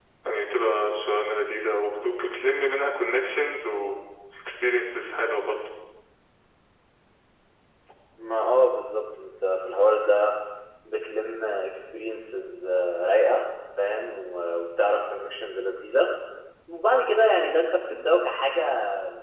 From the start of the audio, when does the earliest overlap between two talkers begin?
none

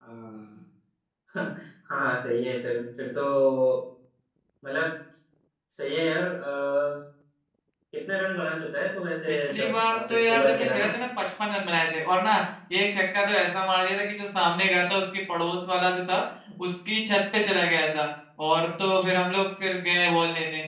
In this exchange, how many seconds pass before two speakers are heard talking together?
9 s

